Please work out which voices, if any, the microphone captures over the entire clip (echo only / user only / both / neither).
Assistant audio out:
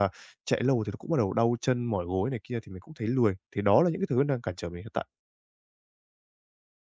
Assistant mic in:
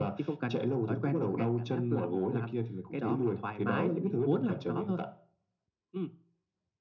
both